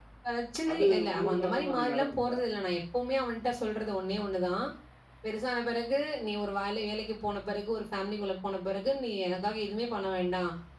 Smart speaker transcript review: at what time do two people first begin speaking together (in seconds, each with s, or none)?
0.7 s